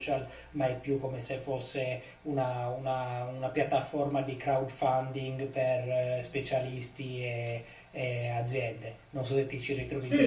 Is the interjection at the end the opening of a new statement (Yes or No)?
Yes